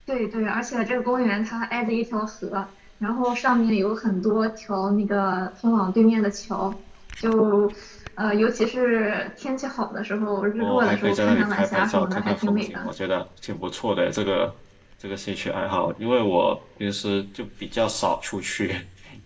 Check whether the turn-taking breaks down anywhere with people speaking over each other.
Yes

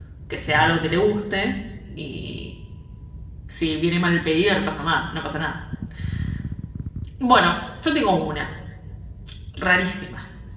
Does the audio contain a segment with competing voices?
No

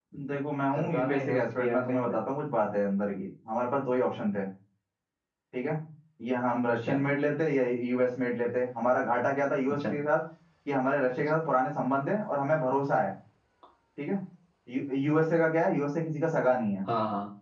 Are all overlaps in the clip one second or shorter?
No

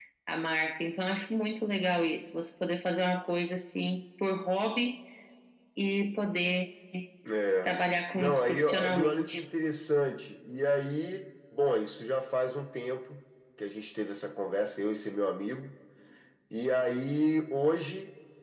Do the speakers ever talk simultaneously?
Yes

